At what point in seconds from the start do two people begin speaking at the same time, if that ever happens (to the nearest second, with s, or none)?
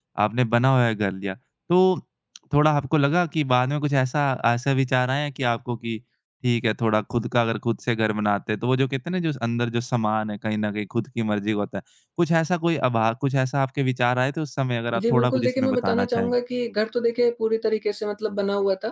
15 s